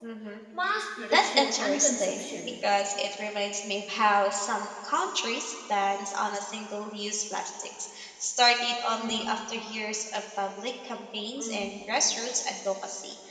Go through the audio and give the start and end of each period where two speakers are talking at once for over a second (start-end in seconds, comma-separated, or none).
1.1-2.5